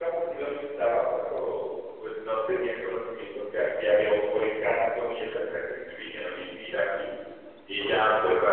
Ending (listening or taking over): listening